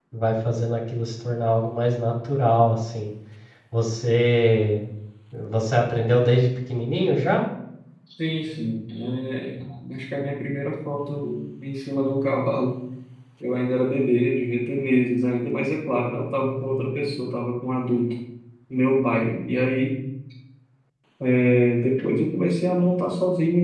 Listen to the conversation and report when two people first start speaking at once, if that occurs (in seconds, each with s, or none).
none